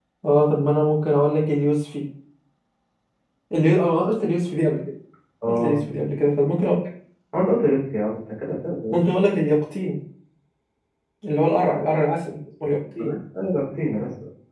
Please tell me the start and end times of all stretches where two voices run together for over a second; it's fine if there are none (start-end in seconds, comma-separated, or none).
none